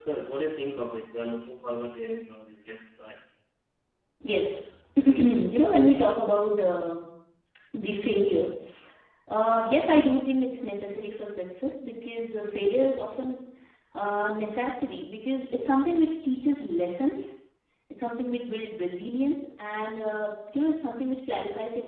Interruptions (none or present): none